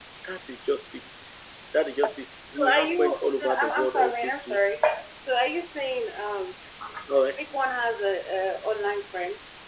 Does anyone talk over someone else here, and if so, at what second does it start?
3 s

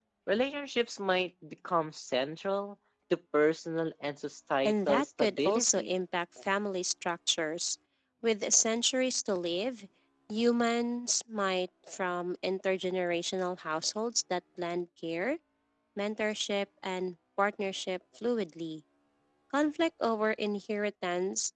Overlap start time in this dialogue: 5 s

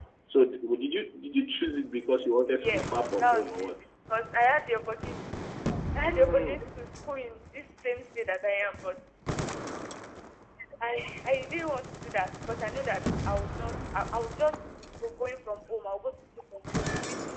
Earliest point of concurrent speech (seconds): 2 s

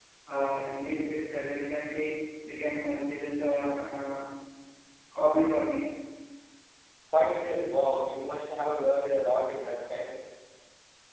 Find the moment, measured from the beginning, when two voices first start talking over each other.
none

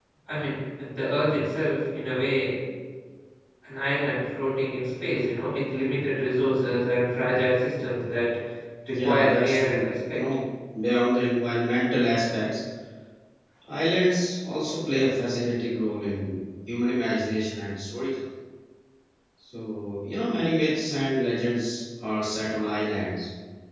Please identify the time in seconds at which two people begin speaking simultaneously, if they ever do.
9 s

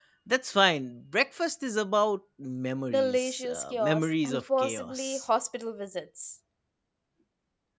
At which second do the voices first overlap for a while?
3 s

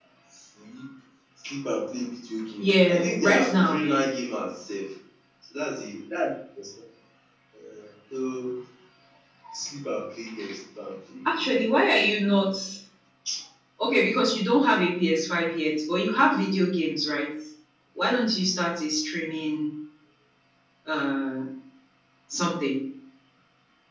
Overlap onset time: 3 s

